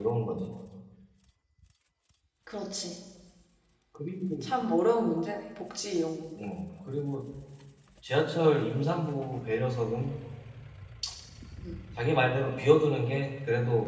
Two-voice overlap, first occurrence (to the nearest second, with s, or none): none